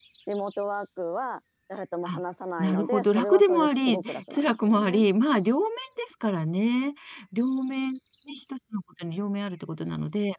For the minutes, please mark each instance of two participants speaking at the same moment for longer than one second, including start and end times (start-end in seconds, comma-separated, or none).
2.6-5.0